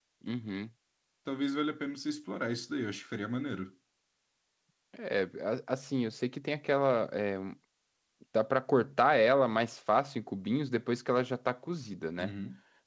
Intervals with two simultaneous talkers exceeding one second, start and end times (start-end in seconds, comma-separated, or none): none